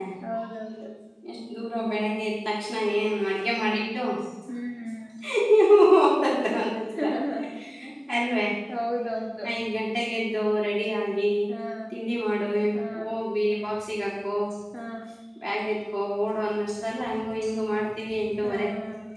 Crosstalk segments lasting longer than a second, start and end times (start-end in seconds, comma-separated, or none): none